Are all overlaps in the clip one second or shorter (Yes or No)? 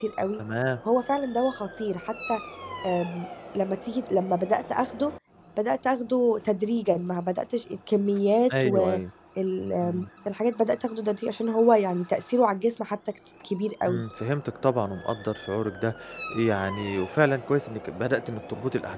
Yes